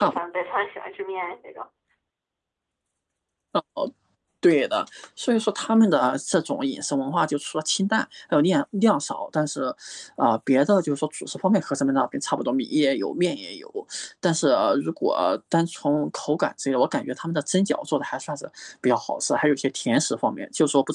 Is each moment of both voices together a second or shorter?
Yes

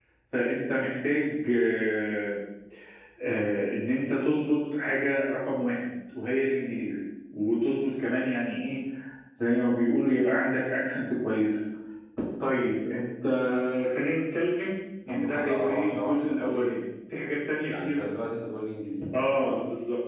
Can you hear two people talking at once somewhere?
Yes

